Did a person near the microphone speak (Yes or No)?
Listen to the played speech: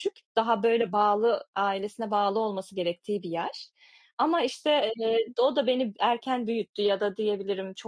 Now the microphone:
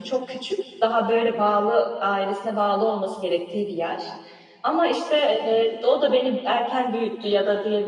No